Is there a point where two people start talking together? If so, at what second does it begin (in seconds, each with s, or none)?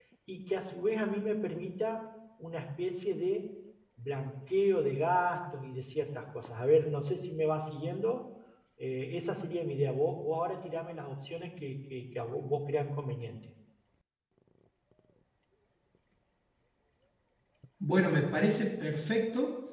none